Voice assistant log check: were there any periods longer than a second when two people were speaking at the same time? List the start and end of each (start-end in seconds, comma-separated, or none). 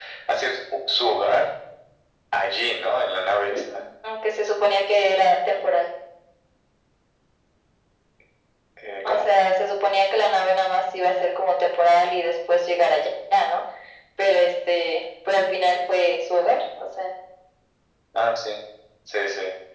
none